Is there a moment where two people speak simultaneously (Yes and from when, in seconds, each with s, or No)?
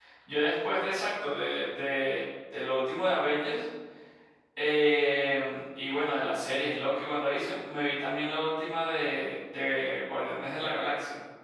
No